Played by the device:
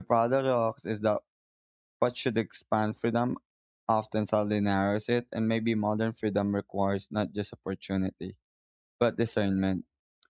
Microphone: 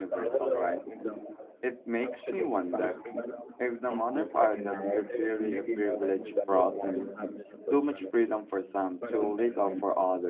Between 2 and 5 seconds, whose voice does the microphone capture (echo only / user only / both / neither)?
both